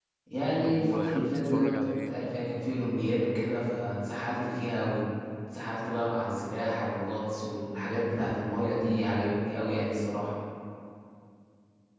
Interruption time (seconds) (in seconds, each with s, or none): 0.6 s